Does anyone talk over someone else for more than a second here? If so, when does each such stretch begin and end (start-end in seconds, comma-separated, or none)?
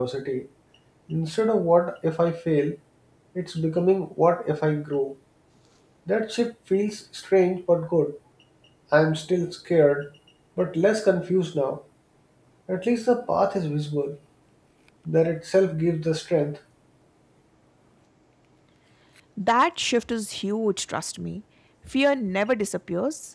none